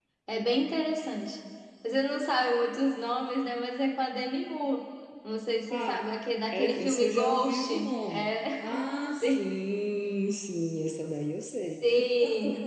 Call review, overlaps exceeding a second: present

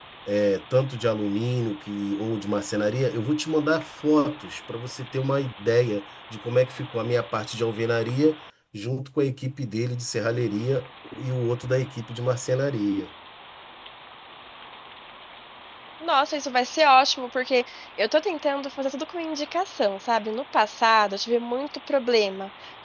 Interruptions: none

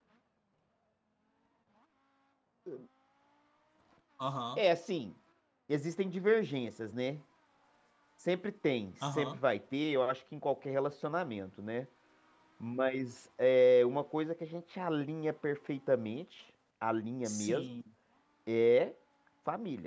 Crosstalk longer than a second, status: none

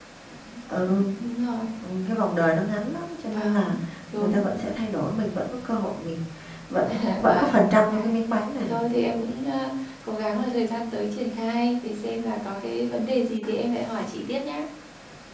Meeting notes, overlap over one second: present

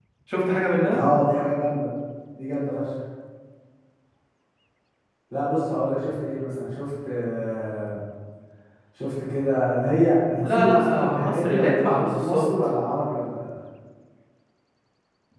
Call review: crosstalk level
present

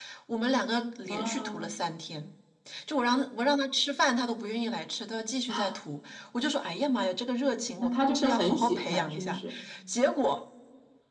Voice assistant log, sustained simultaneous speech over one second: present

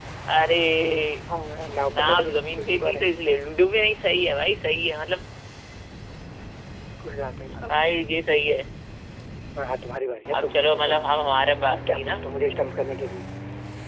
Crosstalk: present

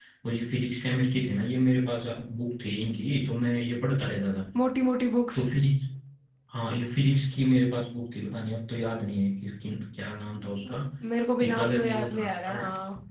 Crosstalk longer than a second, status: present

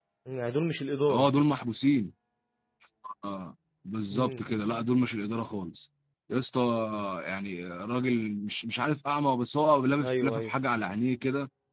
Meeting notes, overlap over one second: none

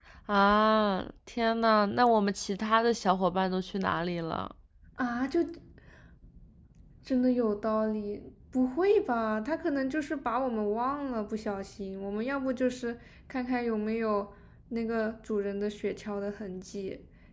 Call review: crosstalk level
none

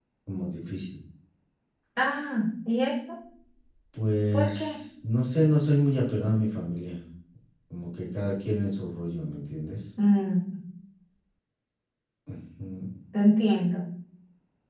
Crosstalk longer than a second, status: none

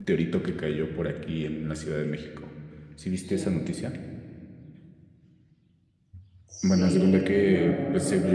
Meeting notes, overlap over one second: present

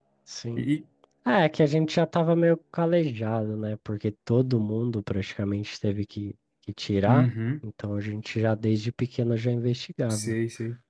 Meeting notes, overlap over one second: none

